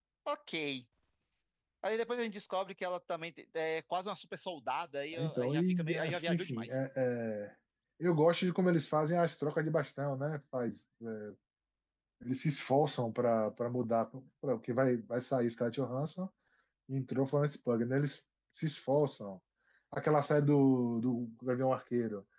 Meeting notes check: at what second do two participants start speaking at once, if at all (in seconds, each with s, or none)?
5.1 s